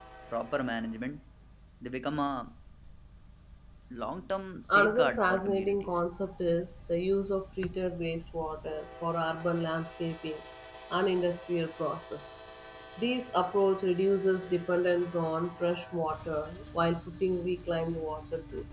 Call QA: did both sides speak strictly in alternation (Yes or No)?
No